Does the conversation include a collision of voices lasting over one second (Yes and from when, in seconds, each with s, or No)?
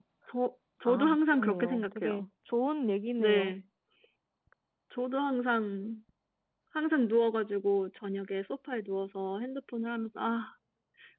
Yes, from 0.8 s